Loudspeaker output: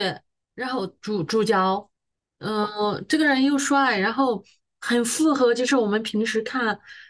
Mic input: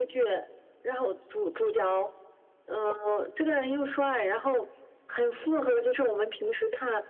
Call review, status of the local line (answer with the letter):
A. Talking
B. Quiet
B